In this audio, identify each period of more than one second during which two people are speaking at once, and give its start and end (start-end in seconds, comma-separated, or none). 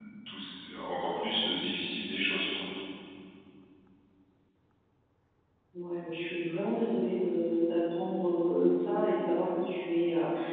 none